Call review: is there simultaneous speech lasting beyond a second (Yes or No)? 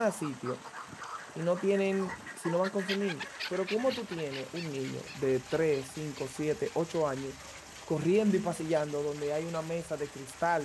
No